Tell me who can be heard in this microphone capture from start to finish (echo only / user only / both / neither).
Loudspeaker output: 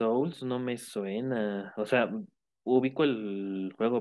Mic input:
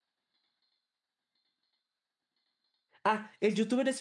user only